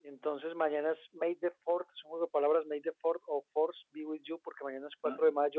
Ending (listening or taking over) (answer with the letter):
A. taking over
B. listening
B